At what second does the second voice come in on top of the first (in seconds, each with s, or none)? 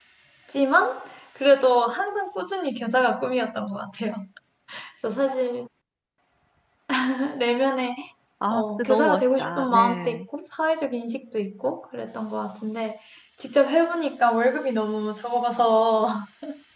8.5 s